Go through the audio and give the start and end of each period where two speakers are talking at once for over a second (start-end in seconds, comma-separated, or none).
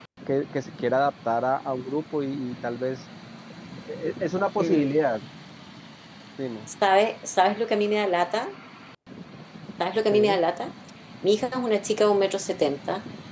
none